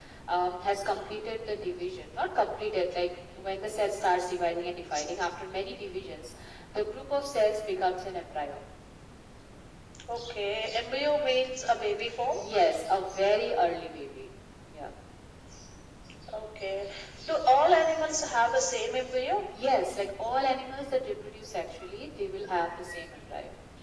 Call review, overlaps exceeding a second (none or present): none